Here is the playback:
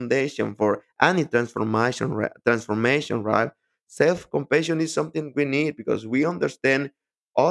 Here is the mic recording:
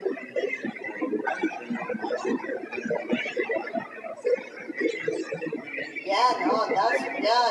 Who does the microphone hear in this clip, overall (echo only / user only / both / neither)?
both